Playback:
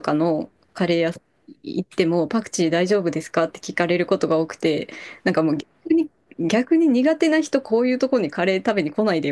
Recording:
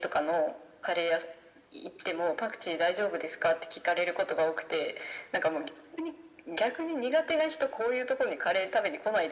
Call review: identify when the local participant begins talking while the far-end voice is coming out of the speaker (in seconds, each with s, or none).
none